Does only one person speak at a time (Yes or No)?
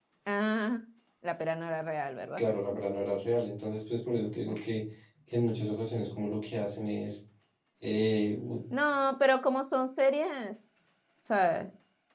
Yes